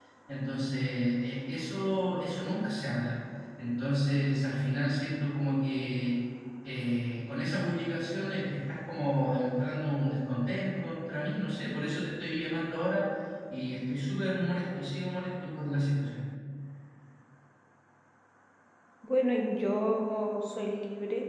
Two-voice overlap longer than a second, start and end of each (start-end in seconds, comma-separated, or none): none